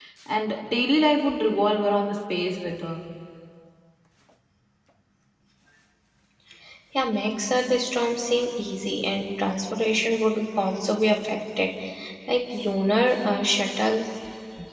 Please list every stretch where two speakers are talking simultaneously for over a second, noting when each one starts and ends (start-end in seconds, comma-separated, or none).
none